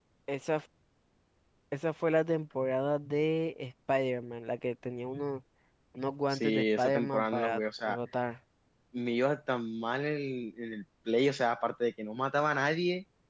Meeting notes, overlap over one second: present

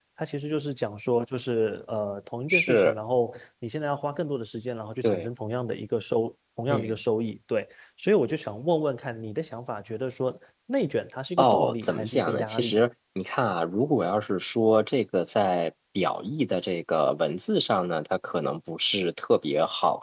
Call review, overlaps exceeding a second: present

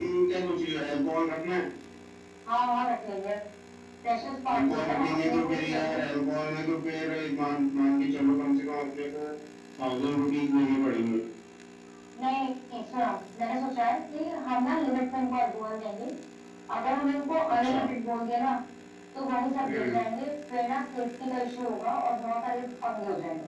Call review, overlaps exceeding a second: present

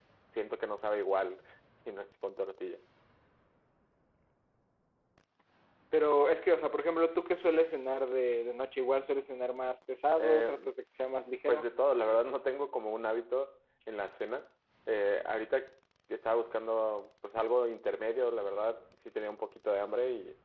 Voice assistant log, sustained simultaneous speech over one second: none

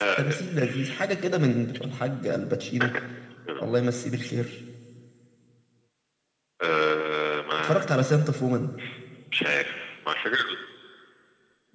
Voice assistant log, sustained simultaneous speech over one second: none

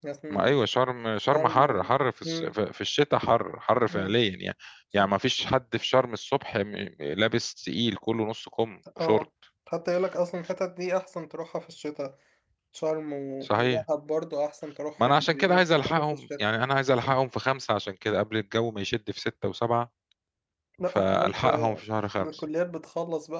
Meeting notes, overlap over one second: present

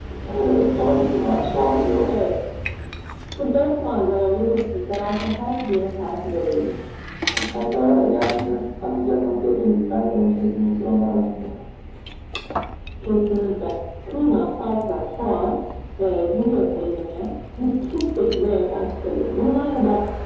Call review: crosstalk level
none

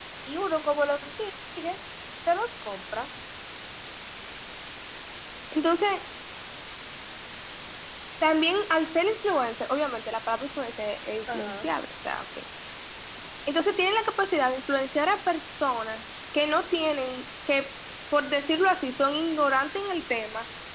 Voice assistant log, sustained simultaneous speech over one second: none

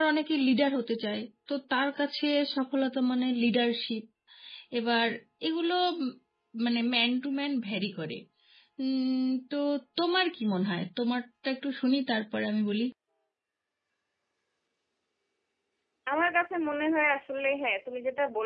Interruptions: none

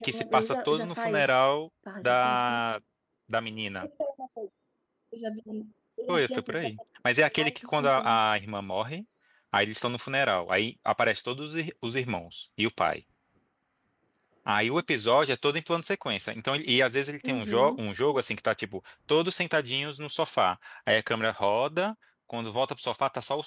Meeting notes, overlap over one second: present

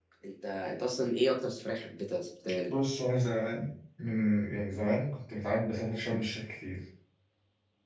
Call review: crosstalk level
none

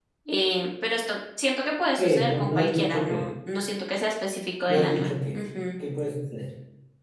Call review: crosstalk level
present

